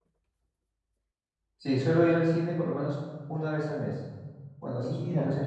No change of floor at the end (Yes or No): Yes